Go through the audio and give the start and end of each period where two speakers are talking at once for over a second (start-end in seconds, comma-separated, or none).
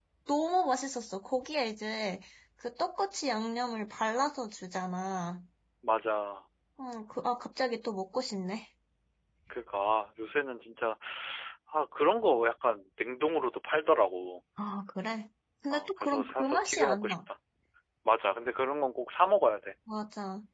15.7-17.1